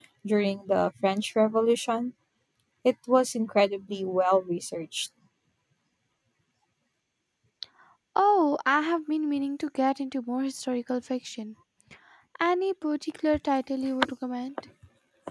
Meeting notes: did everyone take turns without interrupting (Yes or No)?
Yes